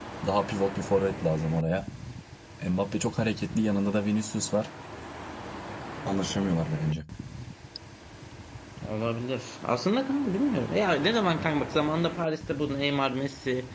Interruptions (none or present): none